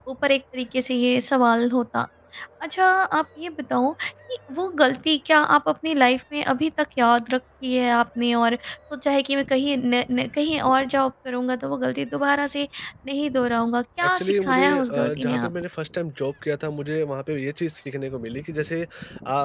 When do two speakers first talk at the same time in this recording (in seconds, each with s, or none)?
14.0 s